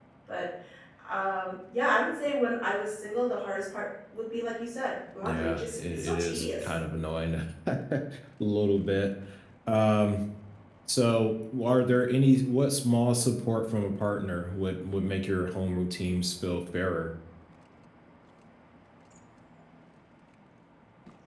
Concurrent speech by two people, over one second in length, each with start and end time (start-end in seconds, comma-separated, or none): 5.2-6.7